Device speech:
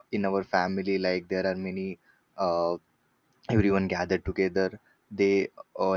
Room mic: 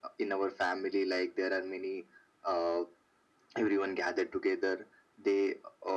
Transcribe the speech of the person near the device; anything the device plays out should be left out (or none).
none